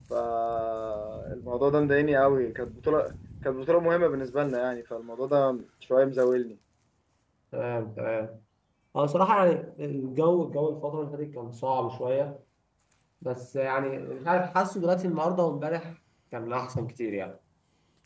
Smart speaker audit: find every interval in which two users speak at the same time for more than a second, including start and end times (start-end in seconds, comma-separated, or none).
none